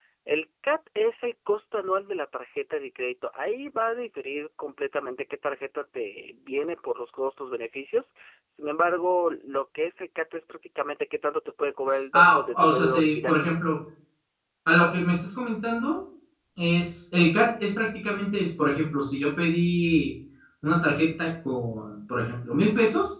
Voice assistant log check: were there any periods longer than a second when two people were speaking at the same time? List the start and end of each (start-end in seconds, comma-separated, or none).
12.1-13.3